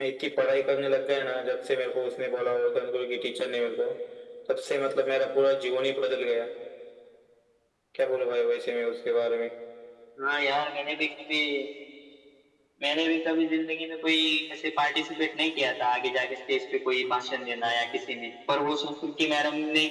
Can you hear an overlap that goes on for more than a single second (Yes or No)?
No